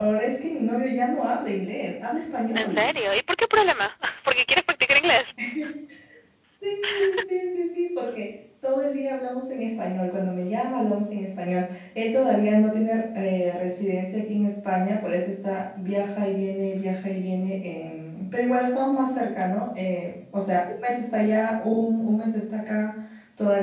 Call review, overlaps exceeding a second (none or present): none